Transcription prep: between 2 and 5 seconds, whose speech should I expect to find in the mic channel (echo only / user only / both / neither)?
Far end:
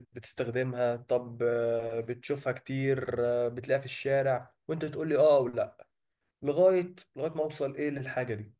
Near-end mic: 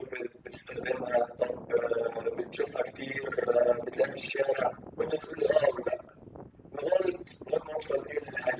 echo only